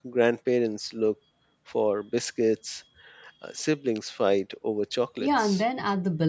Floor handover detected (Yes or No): Yes